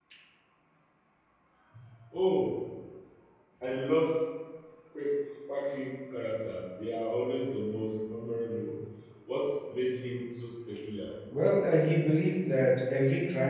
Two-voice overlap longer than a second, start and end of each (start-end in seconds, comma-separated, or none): none